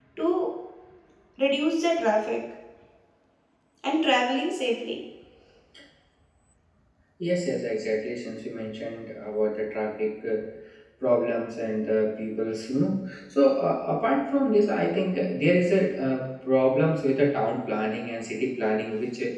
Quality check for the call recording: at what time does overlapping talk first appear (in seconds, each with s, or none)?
none